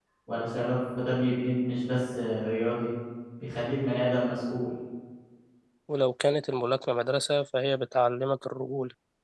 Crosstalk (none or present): none